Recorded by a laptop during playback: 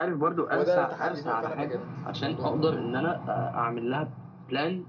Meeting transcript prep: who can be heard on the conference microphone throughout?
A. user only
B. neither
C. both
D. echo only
C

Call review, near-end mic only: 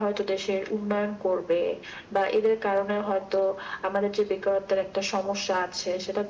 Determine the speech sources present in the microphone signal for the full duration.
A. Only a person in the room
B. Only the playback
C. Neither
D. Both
B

